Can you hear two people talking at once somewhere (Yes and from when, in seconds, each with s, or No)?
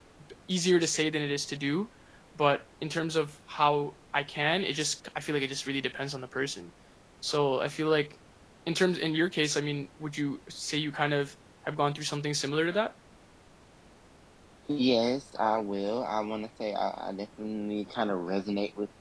No